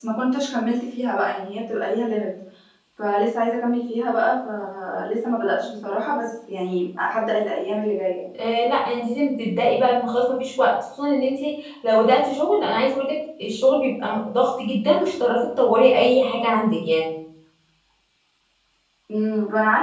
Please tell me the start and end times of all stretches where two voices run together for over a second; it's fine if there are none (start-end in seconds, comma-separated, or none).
none